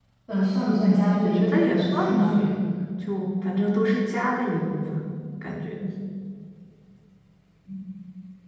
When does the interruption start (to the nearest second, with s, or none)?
1 s